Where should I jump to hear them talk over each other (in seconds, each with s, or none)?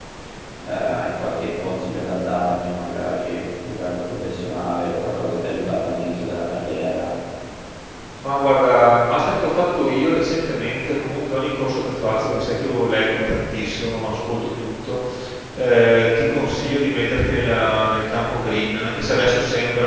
none